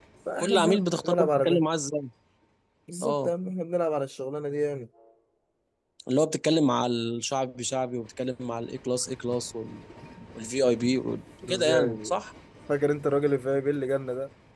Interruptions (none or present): present